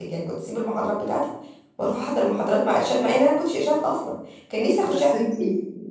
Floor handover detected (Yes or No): Yes